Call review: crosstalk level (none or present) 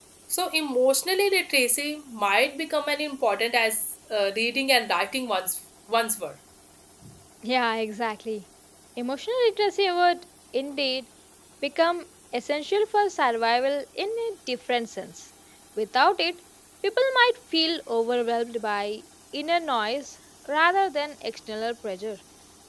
none